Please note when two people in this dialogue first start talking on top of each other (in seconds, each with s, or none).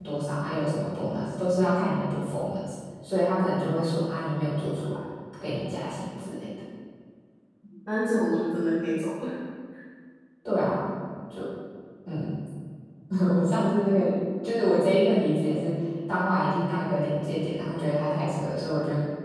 none